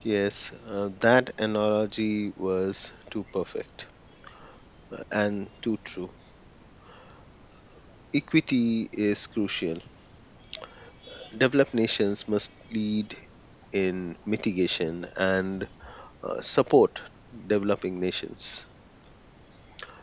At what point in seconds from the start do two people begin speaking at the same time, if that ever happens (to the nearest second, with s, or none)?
none